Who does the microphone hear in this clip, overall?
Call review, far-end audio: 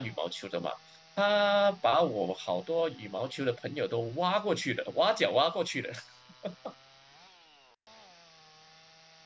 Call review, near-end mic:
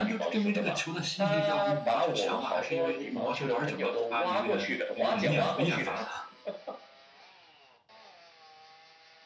both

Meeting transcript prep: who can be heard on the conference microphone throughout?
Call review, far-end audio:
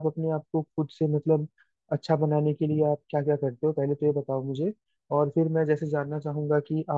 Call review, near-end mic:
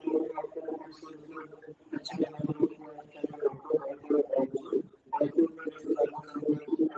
echo only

